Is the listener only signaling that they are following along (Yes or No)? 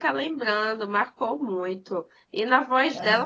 Yes